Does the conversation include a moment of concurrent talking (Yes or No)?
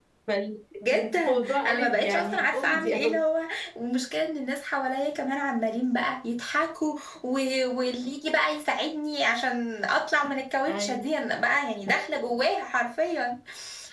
Yes